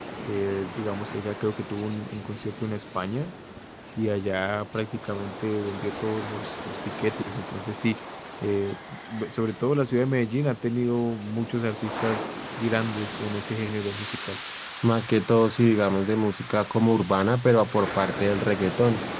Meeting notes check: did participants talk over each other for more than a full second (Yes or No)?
No